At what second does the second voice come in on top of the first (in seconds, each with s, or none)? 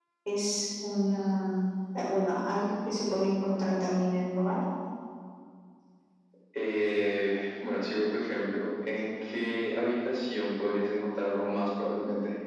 none